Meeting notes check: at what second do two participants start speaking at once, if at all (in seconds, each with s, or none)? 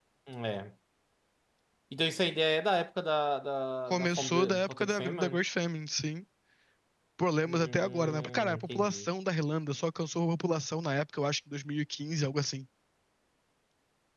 3.9 s